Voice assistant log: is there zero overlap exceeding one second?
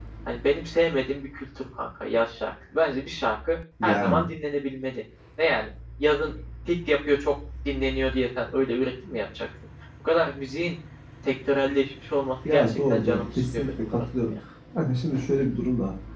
No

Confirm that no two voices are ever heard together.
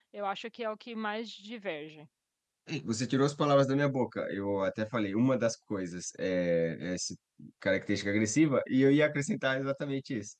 Yes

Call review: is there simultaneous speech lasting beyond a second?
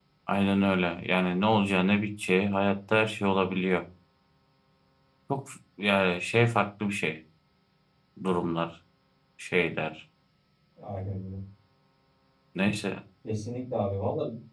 No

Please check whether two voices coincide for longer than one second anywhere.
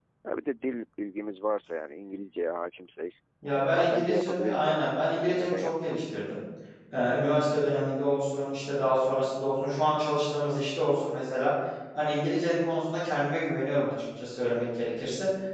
Yes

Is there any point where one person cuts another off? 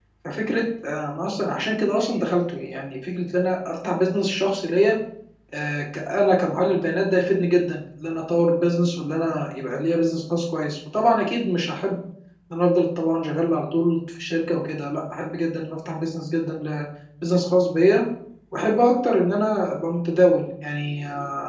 No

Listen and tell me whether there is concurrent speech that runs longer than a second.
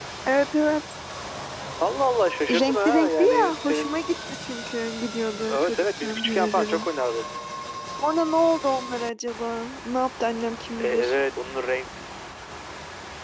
Yes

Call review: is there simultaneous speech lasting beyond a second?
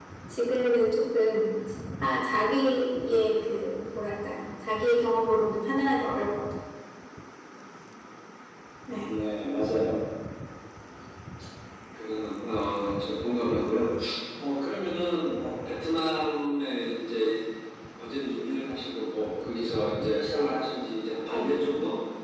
No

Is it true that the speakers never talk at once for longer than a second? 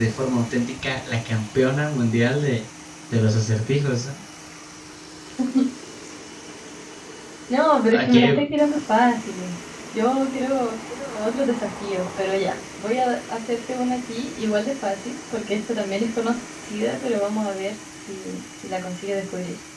Yes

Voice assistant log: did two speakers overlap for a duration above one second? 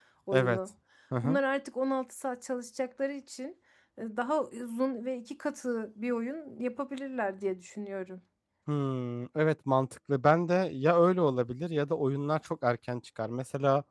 No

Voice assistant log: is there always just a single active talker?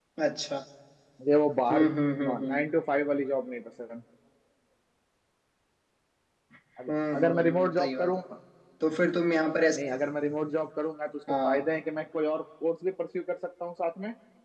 No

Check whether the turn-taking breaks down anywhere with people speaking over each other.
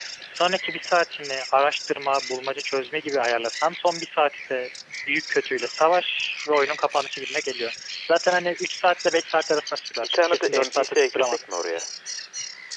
Yes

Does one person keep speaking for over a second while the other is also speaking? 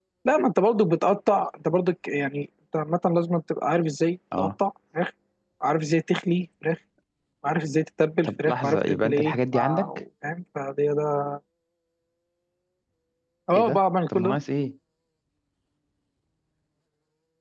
Yes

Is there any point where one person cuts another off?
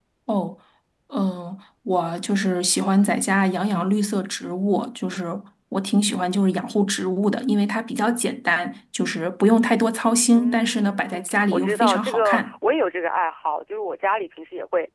Yes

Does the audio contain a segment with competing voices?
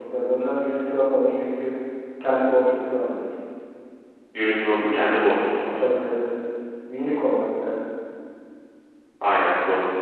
No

